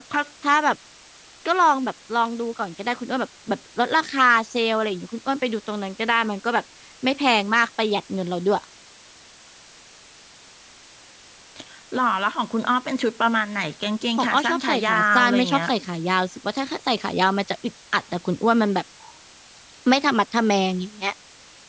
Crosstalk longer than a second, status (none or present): present